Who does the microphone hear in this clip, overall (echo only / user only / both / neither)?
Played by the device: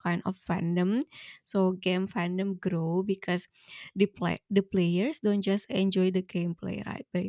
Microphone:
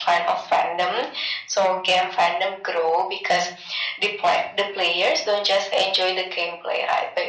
echo only